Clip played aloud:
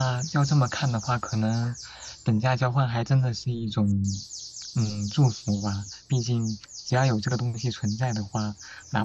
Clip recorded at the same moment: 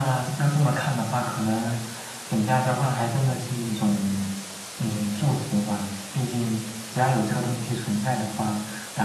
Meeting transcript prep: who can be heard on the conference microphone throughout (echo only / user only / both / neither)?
echo only